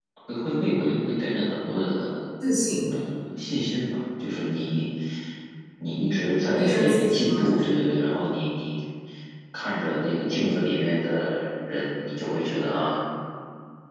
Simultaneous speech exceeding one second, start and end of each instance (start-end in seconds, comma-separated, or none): 6.6-7.9